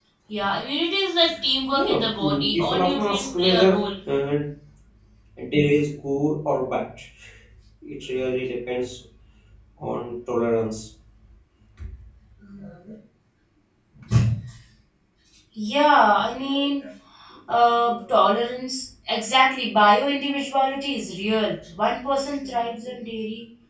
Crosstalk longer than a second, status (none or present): present